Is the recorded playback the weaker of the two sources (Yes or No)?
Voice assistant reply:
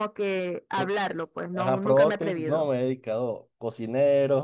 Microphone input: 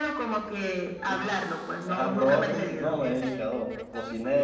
No